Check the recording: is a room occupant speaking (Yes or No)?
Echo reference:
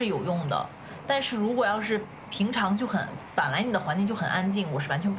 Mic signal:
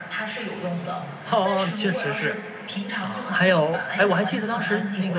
Yes